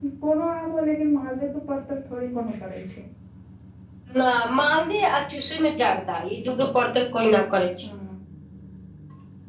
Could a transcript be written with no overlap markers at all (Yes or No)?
Yes